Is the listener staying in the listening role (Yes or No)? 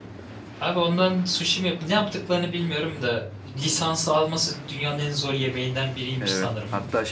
No